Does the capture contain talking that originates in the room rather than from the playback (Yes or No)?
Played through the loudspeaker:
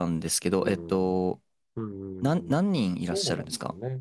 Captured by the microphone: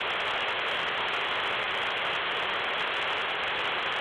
No